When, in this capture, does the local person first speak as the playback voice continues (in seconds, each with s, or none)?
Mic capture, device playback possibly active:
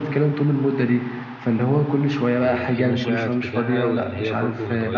2.3 s